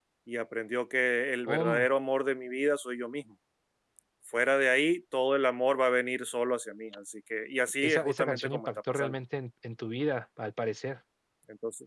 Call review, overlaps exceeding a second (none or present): present